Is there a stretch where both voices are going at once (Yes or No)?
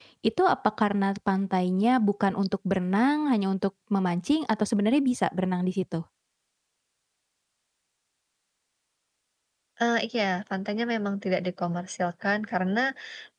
No